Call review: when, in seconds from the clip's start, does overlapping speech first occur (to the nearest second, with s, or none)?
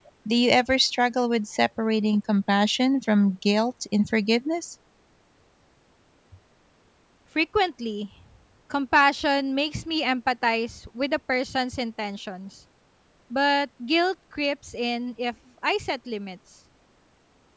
none